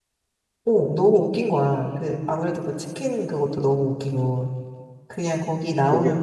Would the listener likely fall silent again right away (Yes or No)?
Yes